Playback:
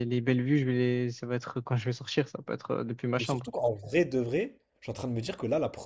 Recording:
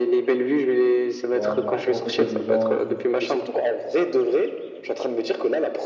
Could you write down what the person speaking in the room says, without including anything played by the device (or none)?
Voilà, de rencontrer des gens et tout.